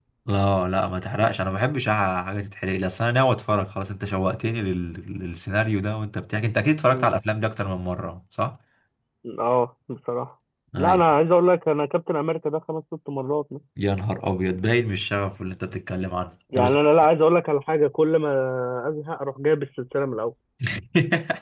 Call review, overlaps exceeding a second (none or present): none